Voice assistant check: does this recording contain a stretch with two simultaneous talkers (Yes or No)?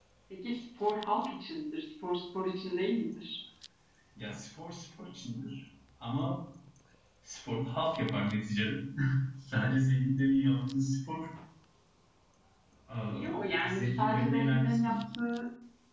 Yes